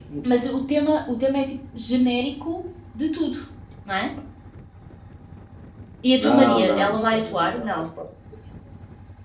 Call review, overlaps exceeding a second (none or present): present